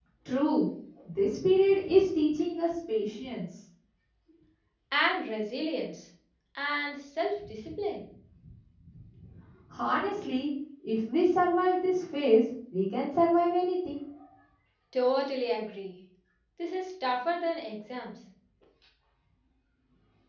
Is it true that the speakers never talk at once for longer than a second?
Yes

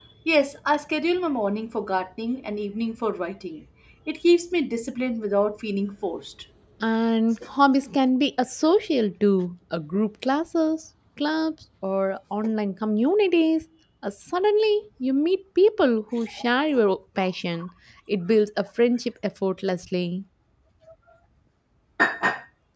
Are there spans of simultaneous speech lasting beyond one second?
No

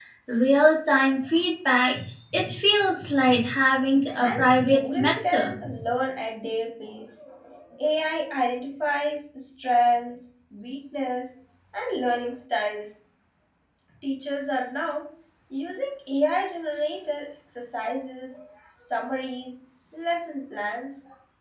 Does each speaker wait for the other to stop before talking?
No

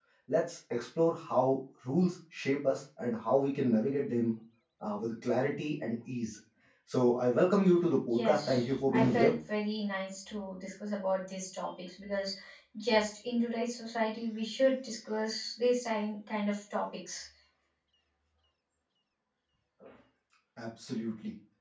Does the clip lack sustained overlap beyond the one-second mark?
No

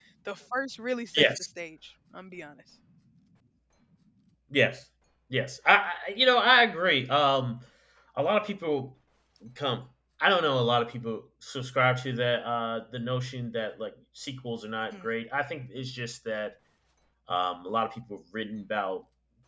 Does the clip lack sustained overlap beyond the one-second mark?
Yes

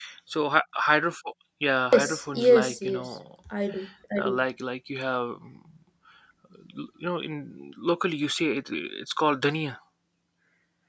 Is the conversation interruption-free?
No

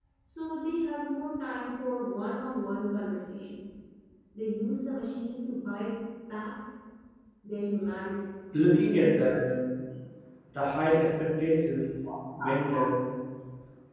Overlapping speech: No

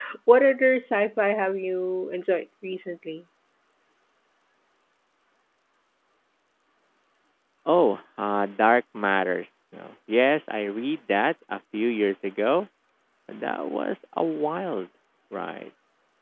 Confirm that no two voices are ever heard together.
Yes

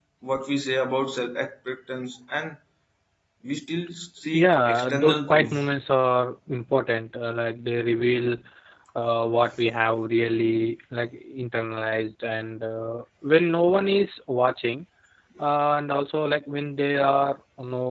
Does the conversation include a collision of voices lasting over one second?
Yes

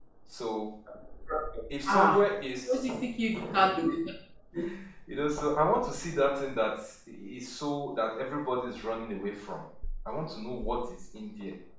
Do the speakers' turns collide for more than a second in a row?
No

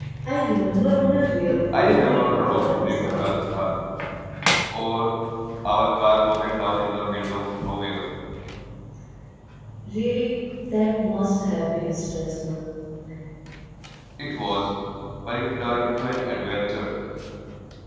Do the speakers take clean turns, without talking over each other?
No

